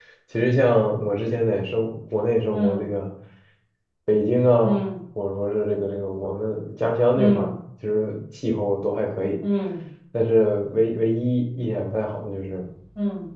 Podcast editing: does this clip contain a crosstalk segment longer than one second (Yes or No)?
No